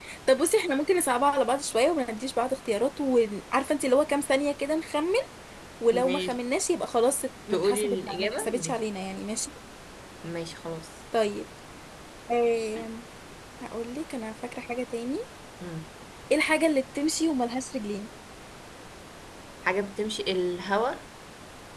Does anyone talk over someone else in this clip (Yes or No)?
Yes